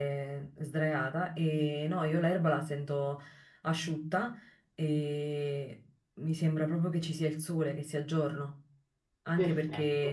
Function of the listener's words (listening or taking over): listening